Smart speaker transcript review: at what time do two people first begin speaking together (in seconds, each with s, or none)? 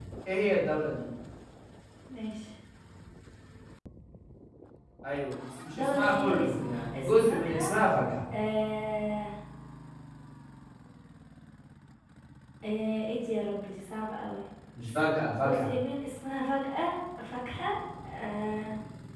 5.7 s